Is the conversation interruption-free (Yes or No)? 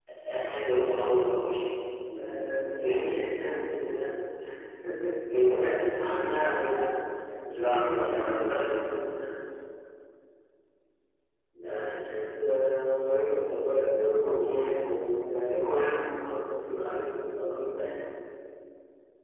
No